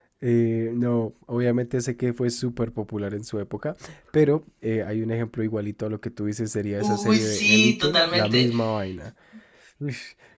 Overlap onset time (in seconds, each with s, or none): 6.8 s